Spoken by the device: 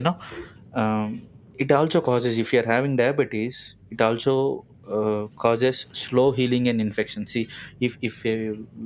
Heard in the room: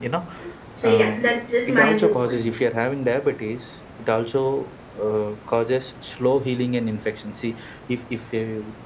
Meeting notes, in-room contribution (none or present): present